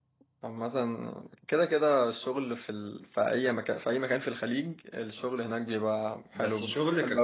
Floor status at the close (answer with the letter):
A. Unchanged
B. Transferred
B